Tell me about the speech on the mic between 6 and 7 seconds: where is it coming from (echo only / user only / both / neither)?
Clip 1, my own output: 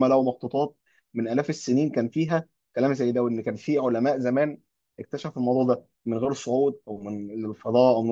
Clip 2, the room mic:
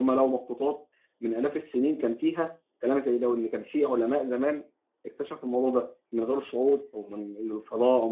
echo only